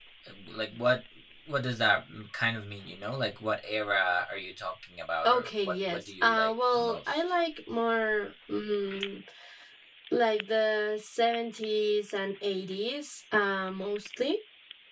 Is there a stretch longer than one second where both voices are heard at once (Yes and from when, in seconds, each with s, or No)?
Yes, from 5.2 s